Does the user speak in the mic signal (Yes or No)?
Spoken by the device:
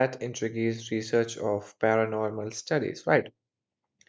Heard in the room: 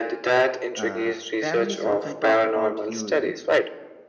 Yes